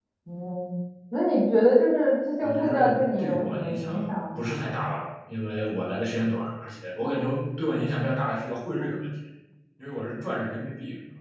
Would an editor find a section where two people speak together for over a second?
Yes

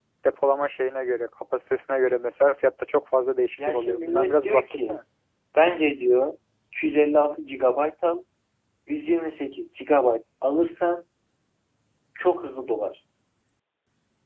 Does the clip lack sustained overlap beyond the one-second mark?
No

